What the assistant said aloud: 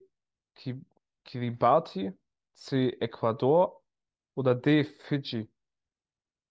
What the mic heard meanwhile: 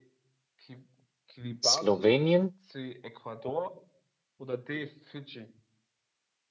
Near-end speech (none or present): present